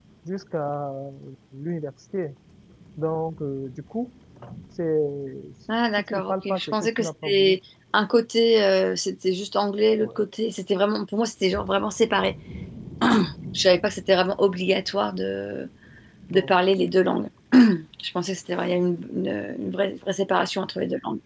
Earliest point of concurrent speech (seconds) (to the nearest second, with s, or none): 6 s